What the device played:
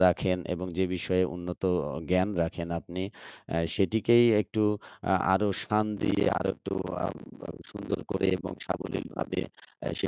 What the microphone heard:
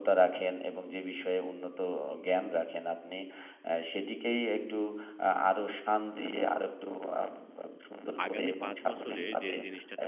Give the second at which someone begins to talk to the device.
8.2 s

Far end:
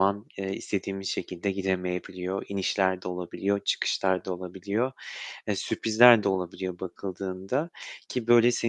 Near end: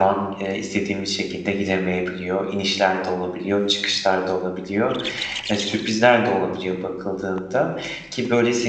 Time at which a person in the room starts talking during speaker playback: none

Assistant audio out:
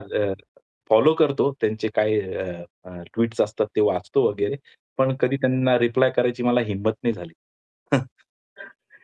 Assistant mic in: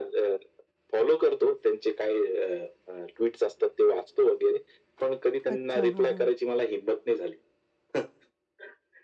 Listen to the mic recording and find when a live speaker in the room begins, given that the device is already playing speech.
5.5 s

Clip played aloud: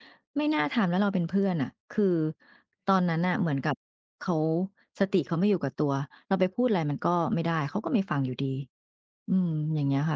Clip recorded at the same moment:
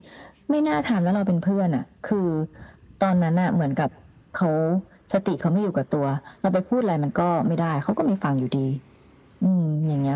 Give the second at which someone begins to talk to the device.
none

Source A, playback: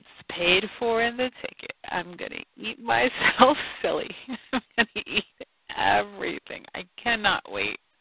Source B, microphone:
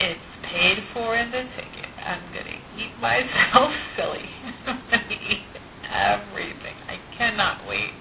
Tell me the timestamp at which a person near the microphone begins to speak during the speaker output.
none

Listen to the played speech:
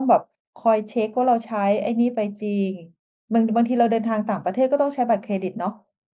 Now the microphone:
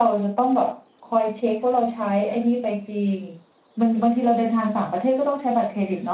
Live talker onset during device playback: none

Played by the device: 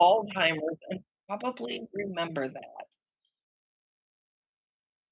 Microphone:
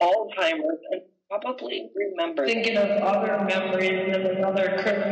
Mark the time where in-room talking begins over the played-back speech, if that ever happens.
2.4 s

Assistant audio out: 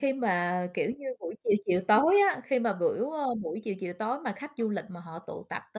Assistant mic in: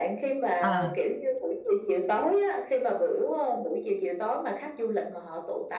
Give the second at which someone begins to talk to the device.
0.6 s

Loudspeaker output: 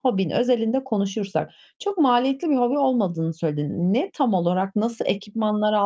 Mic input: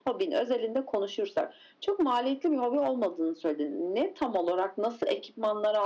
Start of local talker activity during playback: none

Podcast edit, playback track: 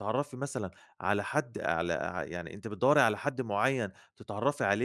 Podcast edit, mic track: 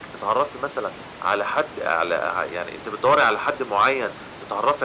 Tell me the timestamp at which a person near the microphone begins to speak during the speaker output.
none

